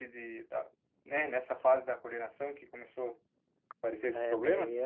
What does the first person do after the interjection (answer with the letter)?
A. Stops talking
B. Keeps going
A